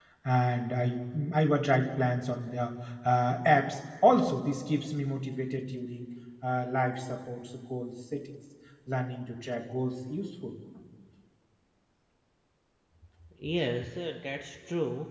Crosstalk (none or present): none